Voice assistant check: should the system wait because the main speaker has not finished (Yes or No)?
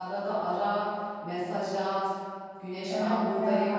Yes